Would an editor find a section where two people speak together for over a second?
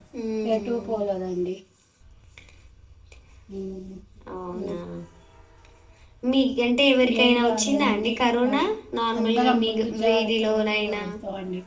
Yes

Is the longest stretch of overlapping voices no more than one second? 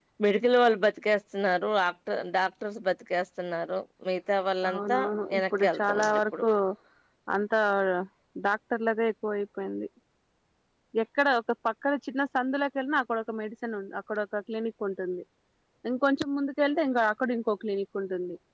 No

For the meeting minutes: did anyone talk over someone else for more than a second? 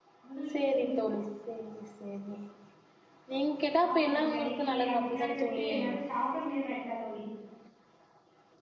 Yes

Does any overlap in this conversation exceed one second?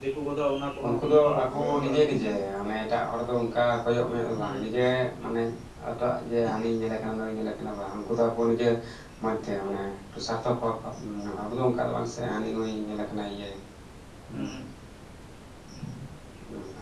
Yes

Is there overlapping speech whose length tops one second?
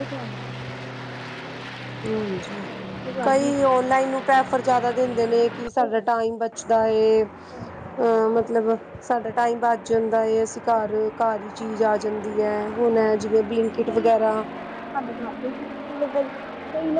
No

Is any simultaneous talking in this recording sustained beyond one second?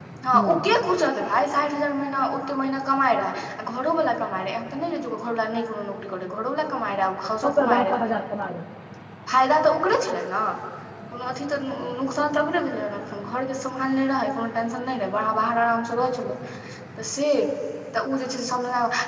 No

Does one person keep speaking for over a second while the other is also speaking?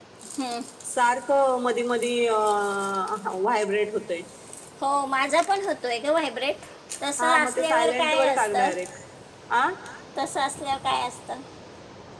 Yes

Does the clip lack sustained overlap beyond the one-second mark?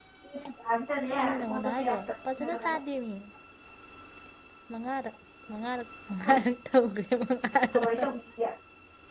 No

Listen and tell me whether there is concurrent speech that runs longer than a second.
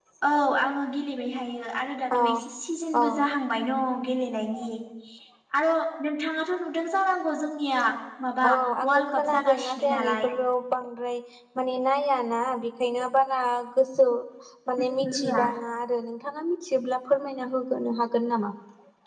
Yes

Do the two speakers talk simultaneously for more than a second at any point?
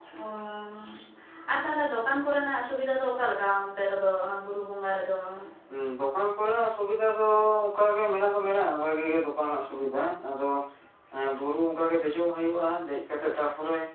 No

